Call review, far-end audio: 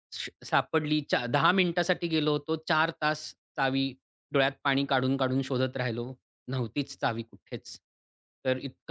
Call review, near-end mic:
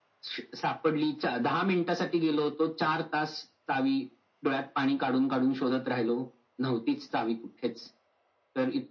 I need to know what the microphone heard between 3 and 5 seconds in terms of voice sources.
echo only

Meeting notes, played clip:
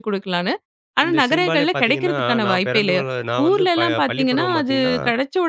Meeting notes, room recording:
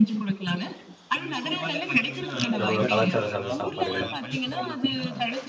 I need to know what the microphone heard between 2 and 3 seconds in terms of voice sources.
both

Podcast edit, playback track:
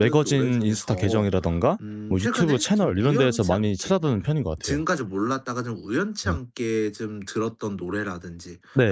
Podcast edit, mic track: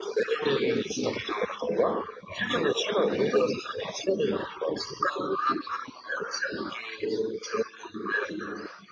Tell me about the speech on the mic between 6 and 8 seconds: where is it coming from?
echo only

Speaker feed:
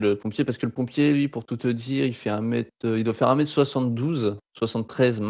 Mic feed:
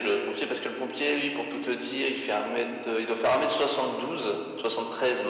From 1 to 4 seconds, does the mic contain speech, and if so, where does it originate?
echo only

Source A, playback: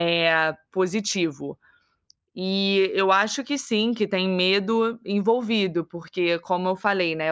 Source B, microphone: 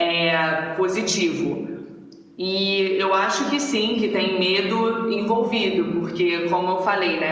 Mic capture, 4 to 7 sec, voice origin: echo only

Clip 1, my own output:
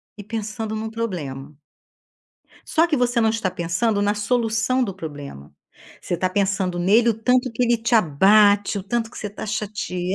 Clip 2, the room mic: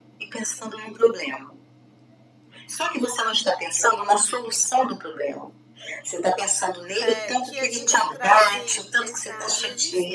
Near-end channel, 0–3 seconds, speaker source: echo only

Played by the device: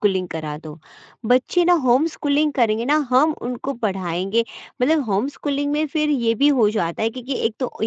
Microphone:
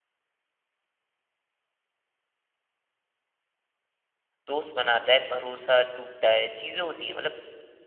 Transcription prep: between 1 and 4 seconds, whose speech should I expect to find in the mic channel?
neither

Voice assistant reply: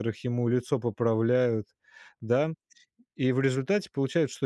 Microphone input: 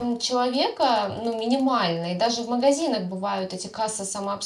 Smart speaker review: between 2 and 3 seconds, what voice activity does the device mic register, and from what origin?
user only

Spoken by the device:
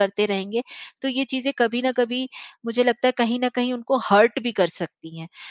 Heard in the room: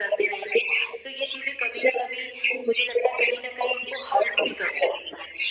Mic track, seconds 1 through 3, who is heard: echo only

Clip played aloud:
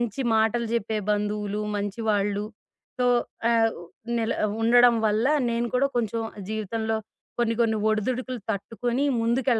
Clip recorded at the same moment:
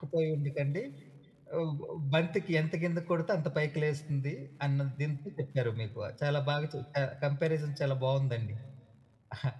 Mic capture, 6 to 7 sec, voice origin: user only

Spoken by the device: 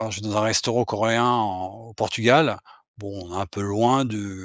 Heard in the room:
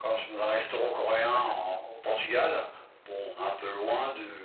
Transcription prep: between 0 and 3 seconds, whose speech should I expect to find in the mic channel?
both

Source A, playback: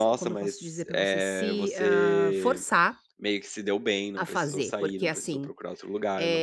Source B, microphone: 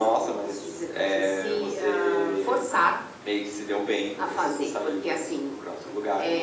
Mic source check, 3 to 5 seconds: echo only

